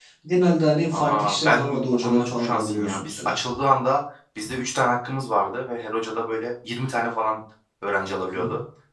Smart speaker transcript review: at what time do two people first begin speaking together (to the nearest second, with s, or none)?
1 s